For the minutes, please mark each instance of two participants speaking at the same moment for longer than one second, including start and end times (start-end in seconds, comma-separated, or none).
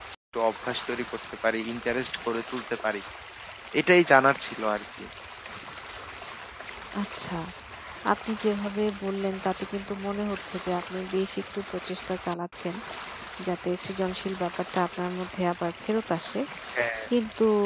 none